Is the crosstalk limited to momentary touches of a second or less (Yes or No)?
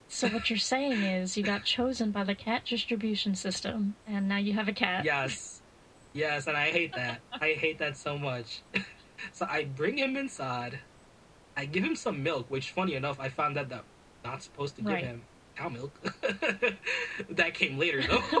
Yes